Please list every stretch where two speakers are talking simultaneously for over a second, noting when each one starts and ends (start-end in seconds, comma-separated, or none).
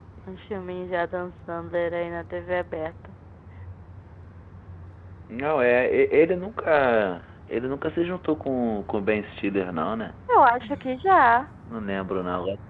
none